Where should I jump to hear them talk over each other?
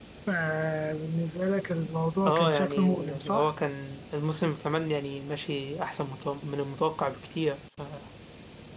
2 s

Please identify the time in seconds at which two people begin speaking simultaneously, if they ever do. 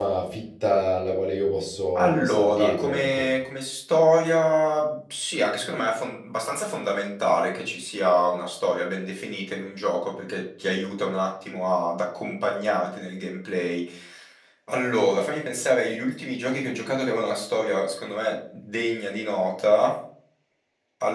2 s

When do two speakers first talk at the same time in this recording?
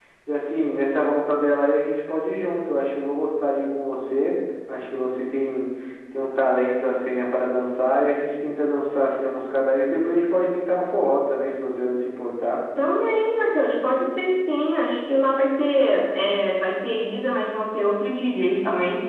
none

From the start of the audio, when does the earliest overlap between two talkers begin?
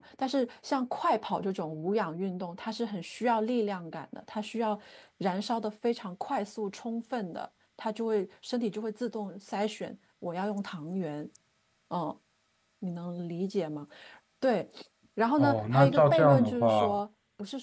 15 s

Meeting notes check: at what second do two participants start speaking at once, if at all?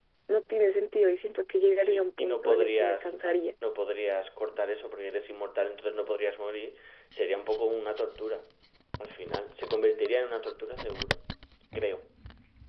2 s

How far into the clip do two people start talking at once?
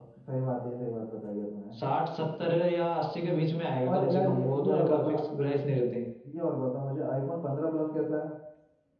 4 s

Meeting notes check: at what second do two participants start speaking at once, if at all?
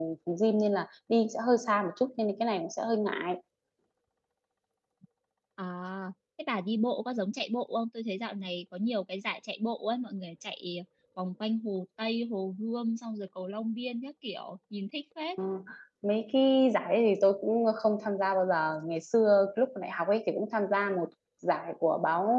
none

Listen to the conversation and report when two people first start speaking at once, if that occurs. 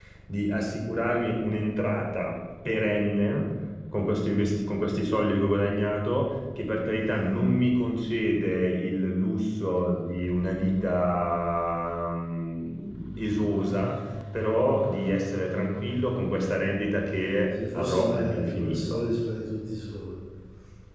18 s

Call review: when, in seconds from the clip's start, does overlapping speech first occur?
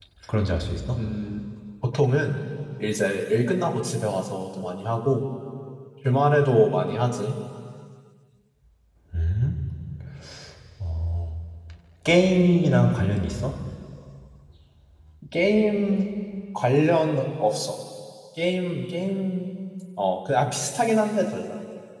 none

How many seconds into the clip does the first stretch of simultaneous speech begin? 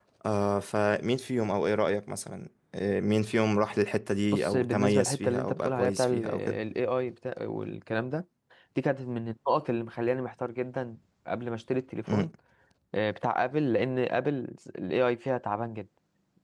4 s

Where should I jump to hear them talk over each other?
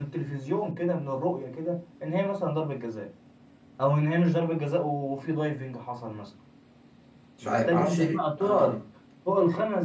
7 s

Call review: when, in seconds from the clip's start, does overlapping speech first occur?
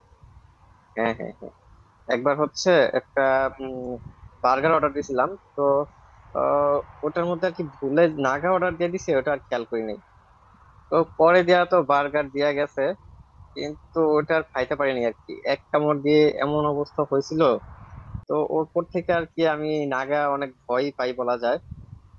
none

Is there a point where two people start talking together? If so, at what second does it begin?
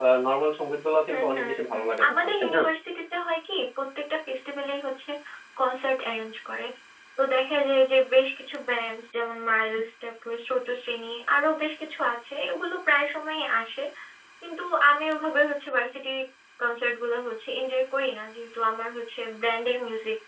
1 s

